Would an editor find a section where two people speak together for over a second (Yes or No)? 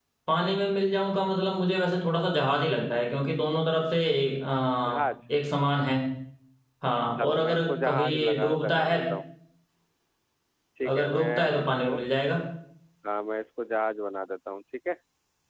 Yes